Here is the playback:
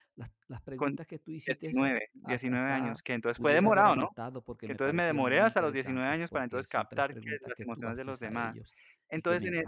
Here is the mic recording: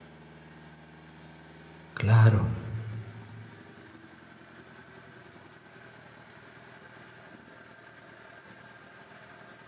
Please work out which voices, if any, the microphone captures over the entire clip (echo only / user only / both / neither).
user only